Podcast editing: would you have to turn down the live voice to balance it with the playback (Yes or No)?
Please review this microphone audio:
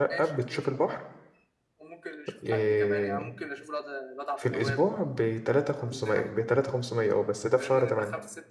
Yes